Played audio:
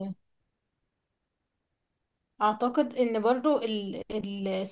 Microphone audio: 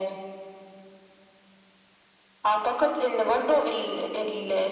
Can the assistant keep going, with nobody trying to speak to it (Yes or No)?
Yes